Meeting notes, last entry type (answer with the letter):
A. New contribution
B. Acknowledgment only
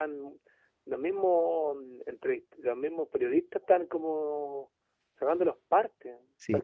A